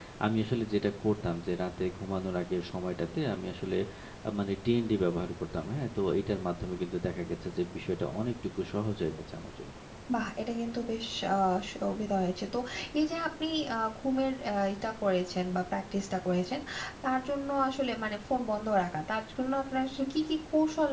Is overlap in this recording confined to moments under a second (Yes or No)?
Yes